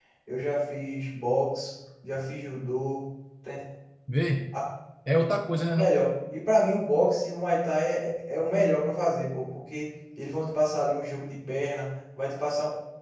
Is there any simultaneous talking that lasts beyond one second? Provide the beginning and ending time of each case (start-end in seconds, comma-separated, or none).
none